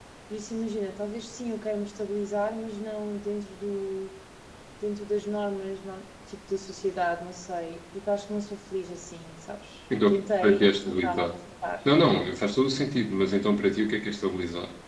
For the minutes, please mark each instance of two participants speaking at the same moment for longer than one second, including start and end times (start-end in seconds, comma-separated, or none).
10.1-11.3